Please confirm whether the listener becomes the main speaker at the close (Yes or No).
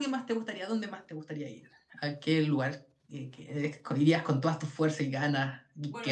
Yes